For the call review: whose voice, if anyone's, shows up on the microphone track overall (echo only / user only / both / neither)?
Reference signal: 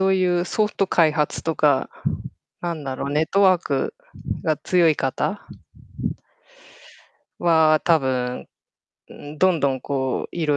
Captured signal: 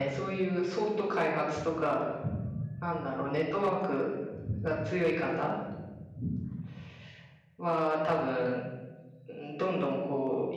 echo only